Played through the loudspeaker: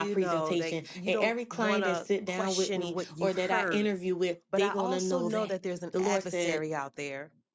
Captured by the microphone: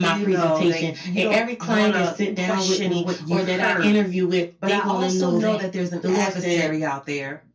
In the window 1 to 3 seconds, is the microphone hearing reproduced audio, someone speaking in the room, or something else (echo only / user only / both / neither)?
echo only